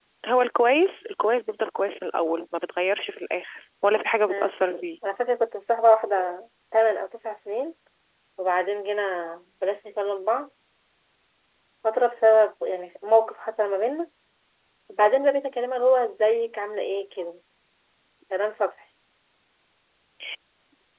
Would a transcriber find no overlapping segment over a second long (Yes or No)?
Yes